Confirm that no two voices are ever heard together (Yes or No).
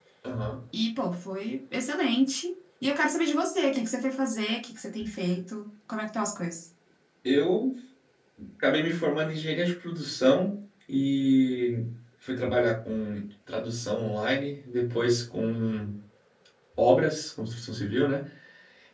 Yes